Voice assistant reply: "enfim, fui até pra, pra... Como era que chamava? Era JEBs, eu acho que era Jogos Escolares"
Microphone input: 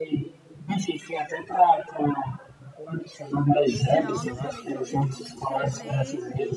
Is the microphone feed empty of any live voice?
No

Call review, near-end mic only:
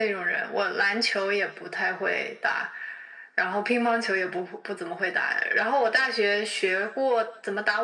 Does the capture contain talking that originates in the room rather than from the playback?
No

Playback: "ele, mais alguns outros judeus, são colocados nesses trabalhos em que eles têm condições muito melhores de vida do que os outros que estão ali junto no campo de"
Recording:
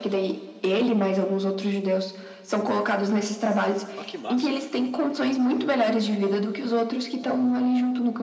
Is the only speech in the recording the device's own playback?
No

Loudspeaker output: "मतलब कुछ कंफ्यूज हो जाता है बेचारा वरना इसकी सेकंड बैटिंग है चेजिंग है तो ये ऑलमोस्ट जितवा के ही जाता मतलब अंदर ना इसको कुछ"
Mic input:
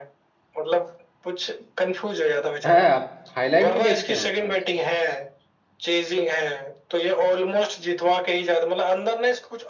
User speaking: Yes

